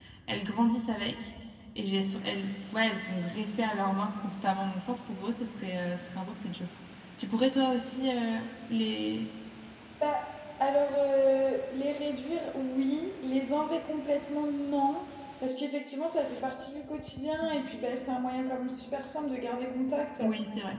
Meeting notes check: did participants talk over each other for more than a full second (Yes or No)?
No